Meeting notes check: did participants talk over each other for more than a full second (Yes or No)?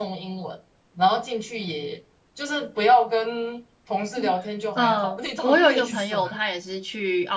Yes